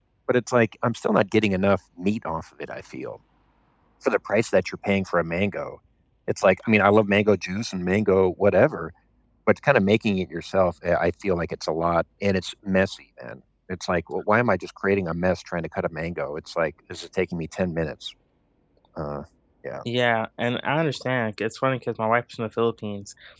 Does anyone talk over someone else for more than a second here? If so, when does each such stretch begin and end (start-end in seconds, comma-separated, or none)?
none